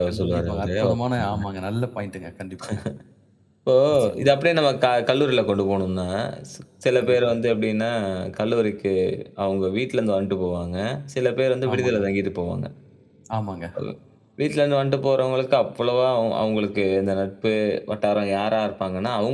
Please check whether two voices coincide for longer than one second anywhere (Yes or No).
Yes